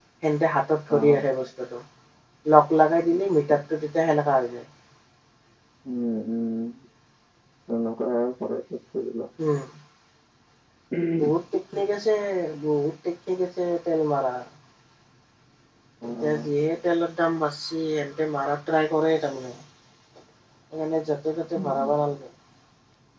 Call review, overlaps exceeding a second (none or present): none